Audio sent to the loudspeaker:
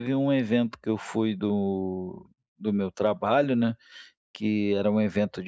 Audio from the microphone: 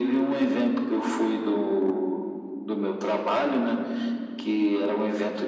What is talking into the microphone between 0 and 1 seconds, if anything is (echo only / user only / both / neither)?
echo only